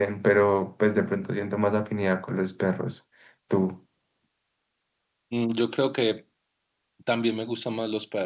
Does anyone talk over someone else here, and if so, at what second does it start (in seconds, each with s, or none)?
none